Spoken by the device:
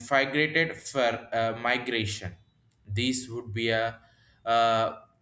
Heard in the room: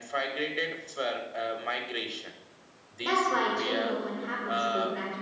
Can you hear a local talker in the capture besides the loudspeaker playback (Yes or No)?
Yes